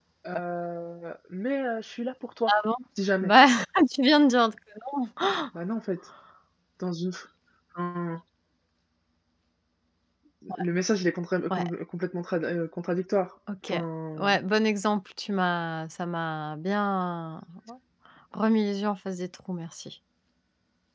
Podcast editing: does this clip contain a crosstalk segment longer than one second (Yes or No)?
No